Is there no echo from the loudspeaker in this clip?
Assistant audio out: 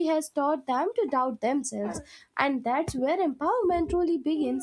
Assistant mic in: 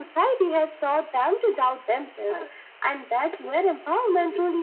No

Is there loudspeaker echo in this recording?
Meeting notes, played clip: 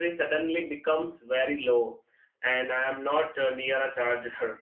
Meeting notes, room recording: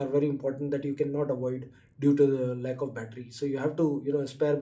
No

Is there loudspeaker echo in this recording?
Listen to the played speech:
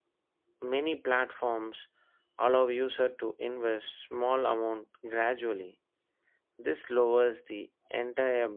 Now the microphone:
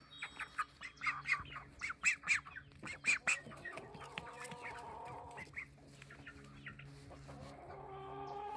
No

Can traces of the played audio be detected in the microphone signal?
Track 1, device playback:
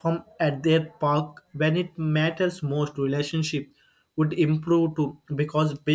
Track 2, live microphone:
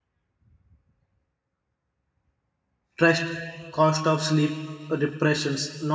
No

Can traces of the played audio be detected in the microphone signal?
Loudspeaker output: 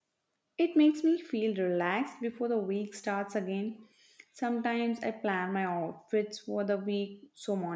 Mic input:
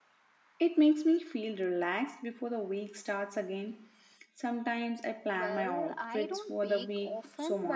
Yes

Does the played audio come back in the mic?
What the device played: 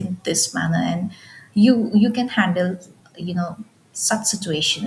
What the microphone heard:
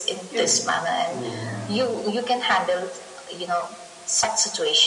Yes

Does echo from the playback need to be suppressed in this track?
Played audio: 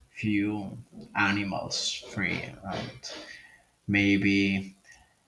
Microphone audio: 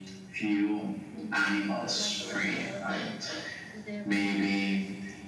Yes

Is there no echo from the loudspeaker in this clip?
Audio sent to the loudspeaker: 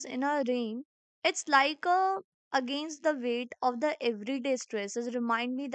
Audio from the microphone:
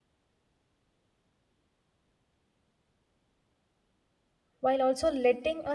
Yes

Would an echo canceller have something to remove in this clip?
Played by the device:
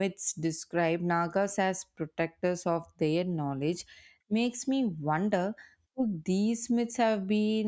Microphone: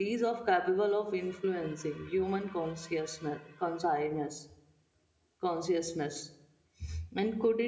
No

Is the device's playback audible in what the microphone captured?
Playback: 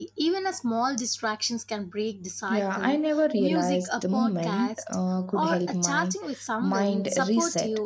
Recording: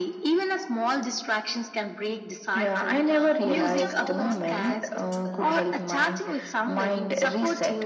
Yes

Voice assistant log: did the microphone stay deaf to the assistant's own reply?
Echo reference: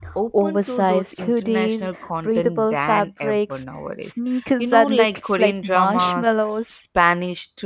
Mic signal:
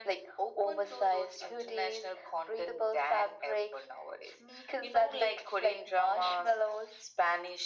No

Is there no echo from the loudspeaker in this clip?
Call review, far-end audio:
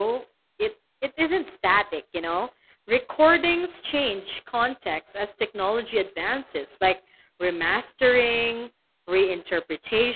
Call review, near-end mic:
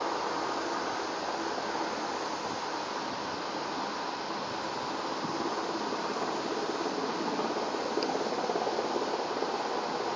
Yes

